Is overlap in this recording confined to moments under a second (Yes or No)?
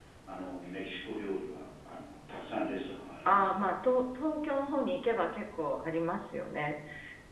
Yes